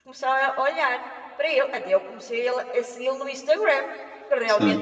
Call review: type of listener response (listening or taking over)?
listening